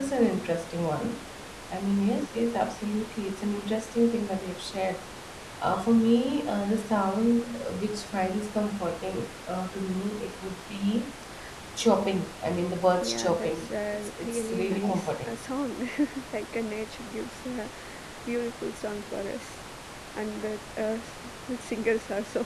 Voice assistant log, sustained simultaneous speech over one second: present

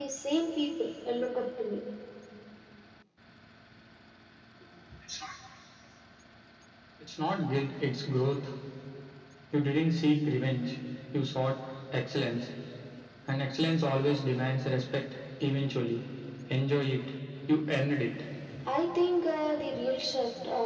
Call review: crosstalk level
none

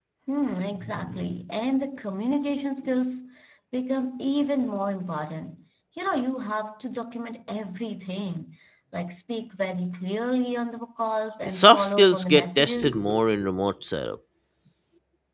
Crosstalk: present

